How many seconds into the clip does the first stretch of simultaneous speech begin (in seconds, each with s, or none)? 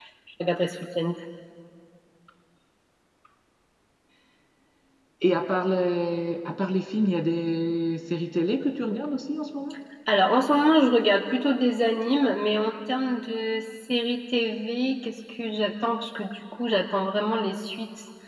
none